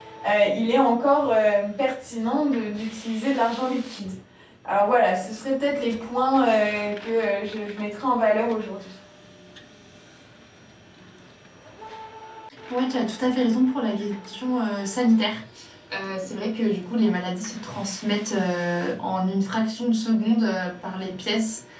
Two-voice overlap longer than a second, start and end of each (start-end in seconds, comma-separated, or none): none